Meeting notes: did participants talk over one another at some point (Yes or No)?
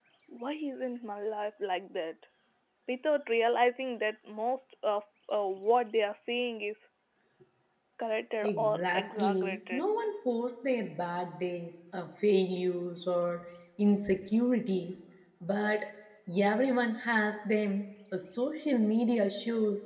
Yes